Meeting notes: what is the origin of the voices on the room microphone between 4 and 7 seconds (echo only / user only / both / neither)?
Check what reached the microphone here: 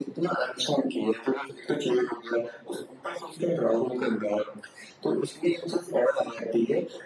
echo only